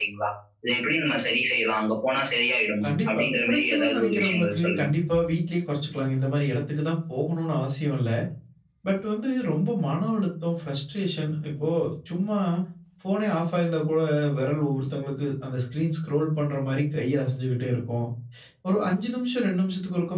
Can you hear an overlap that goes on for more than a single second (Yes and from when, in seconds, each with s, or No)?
Yes, from 2.8 s